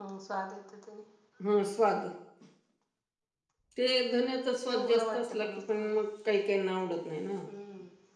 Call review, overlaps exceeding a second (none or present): present